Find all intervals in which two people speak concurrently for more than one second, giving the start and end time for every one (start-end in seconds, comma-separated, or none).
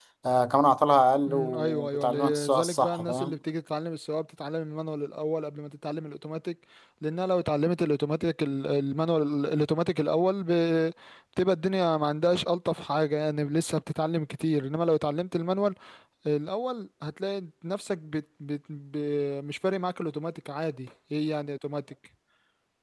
1.3-3.4